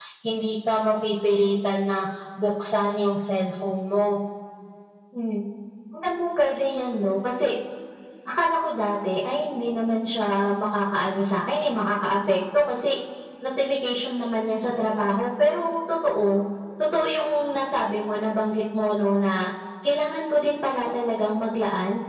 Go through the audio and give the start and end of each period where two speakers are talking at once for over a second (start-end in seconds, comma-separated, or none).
none